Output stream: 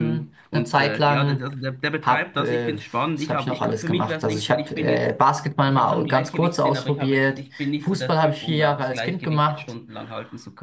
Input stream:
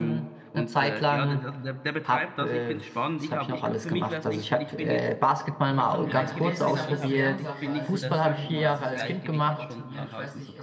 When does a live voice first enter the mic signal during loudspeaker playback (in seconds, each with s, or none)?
6.0 s